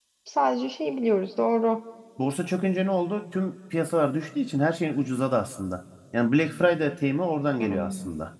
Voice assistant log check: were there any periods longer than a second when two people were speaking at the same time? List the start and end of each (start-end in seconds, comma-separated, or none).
none